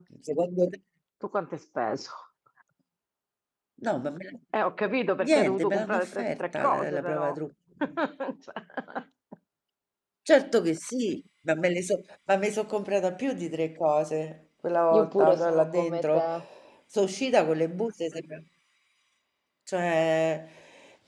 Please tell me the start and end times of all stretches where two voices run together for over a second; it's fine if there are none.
5.3-7.4, 15.0-16.3

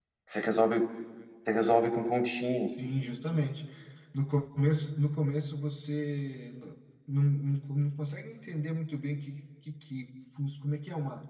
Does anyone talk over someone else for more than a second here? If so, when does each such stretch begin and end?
none

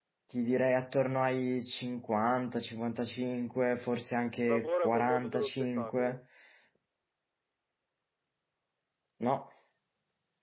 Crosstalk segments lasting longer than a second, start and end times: 4.4-6.2

